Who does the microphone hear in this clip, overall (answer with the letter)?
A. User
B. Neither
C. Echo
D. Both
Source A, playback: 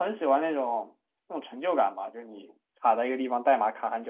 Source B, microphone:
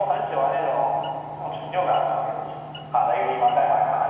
C